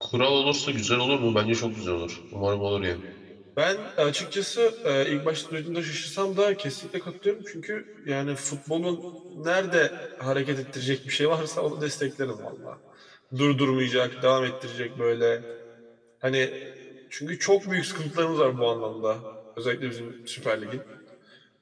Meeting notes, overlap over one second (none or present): none